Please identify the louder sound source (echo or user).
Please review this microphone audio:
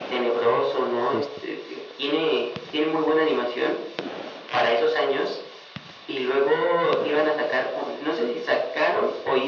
echo